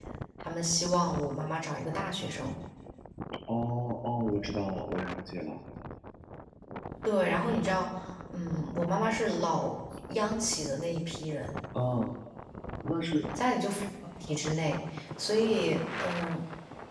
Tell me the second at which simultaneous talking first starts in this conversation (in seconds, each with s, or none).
none